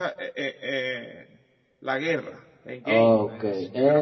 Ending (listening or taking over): taking over